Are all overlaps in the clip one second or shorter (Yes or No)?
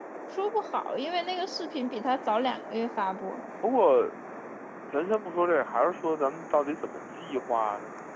Yes